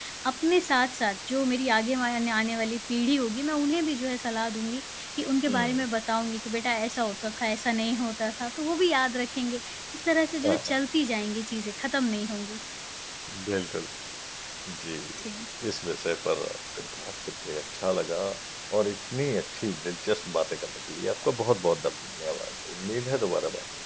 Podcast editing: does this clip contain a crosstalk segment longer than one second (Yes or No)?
No